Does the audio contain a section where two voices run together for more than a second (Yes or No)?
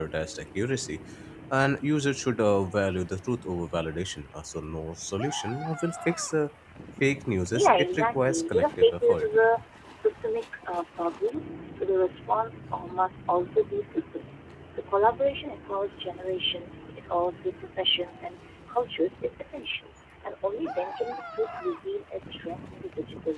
Yes